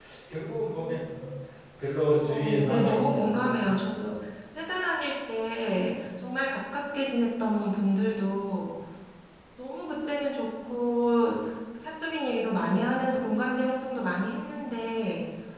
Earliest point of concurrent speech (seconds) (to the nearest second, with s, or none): 2 s